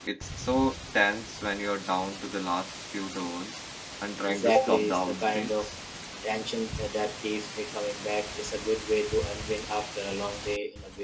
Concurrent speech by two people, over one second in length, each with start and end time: 4.3-5.7

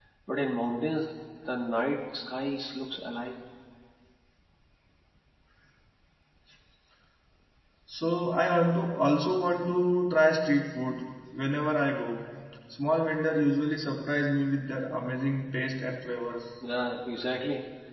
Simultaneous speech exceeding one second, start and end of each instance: none

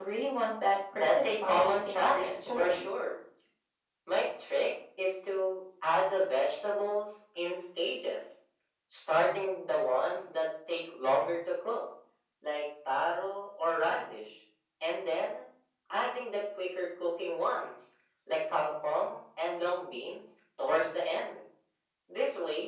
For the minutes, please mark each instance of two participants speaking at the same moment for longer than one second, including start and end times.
1.0-2.9

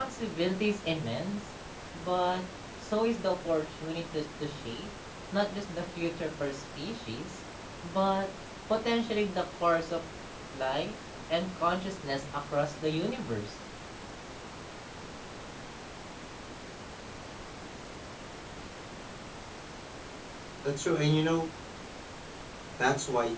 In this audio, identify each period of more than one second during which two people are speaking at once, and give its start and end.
none

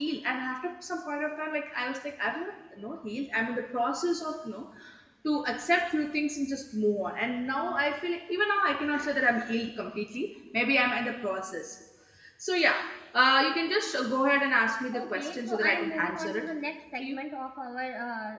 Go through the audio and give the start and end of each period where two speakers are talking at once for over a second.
15.0-16.4

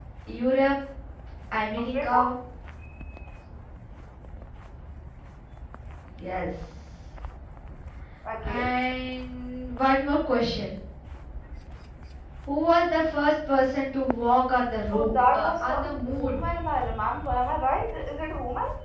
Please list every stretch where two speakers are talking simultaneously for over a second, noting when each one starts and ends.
14.9-16.4

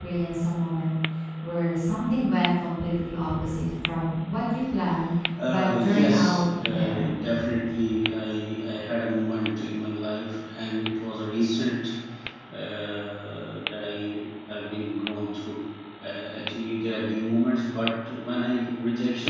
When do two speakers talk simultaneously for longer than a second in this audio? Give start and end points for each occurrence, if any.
5.5-7.1

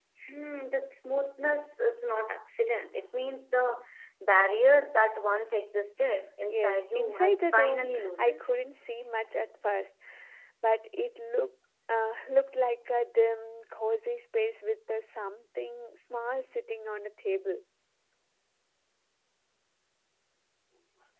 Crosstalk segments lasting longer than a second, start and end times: 6.5-8.4

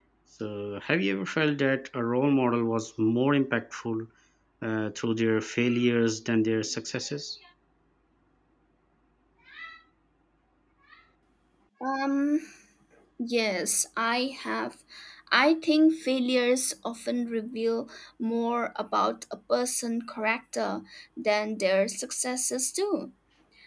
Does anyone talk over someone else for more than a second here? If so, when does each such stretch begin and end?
none

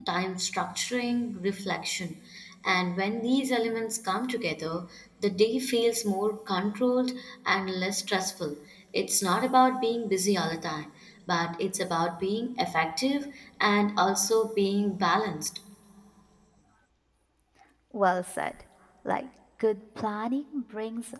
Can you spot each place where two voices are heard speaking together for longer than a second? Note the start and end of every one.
none

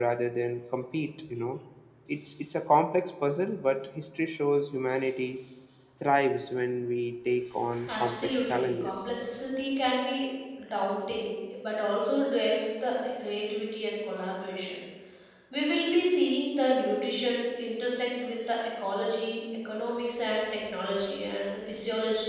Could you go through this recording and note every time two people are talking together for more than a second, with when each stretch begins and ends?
7.9-9.1

